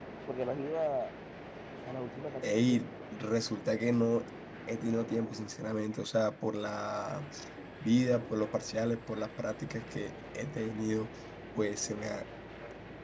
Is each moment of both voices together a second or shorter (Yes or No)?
Yes